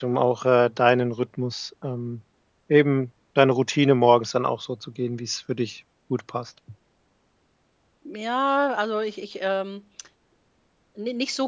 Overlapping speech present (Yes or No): No